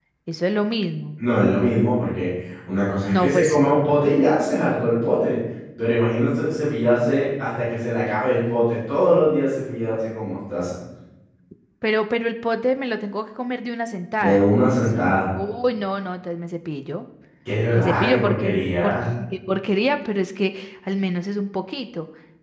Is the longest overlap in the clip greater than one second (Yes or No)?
Yes